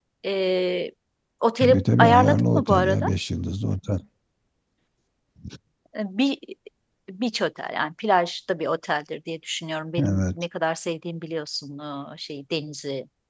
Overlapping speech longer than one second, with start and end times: 1.6-3.1

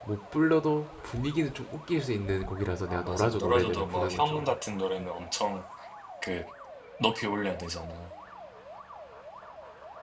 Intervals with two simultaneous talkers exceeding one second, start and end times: 2.9-4.5

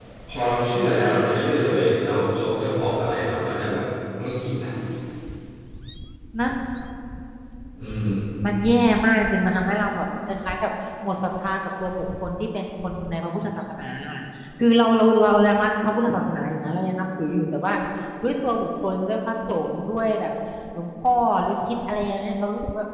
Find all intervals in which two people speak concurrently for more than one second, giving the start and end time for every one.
none

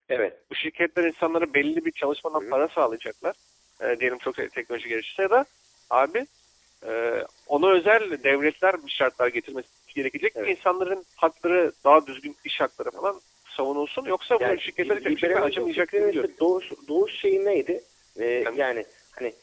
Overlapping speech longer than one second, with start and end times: 14.4-16.3

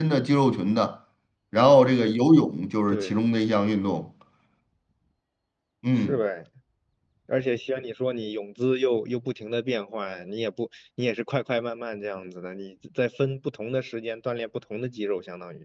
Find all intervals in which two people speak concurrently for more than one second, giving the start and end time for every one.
none

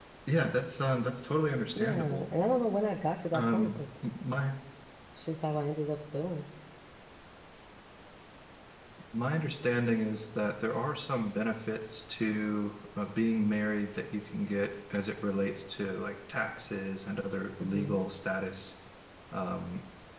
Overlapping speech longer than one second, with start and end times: none

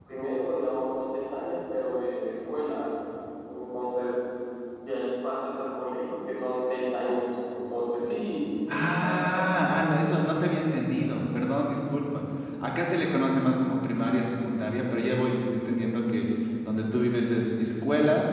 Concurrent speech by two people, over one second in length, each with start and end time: none

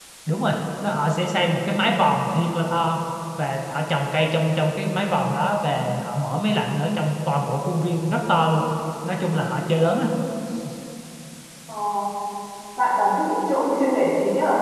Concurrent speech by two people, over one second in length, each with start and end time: none

